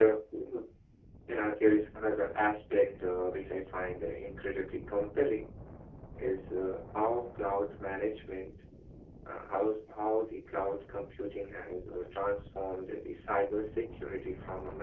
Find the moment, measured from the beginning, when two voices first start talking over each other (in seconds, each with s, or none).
none